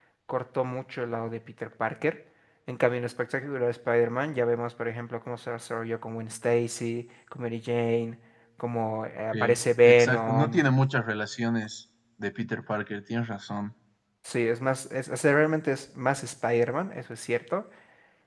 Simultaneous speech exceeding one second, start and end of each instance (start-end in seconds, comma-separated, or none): 9.3-10.6